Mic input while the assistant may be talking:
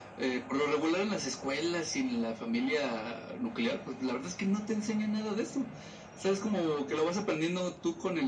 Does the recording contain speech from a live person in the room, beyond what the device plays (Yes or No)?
No